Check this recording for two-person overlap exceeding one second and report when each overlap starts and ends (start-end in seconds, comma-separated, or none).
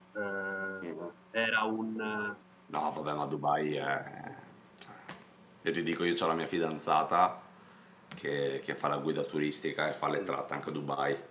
none